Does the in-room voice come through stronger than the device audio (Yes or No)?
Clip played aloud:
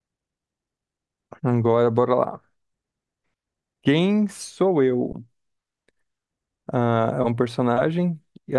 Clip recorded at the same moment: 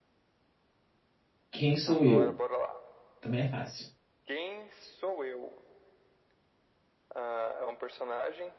Yes